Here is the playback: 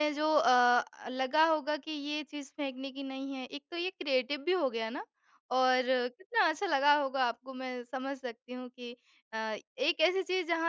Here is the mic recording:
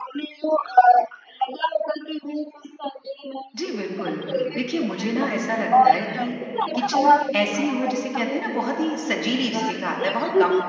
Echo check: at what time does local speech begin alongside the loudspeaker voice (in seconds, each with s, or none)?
3.5 s